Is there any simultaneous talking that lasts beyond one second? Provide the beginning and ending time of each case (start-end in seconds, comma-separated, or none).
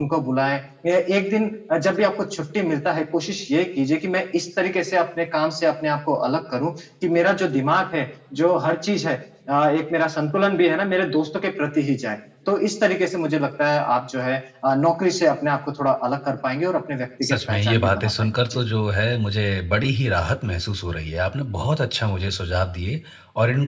17.2-18.6